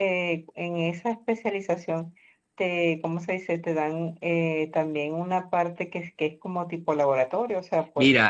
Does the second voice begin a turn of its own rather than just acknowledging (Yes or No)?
Yes